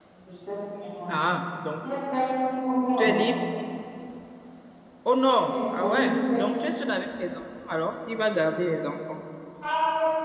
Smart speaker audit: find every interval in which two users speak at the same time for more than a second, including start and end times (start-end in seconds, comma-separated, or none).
5.3-6.6